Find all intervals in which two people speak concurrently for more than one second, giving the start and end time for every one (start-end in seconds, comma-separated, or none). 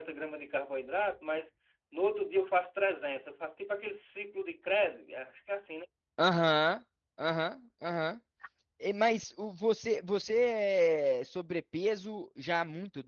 none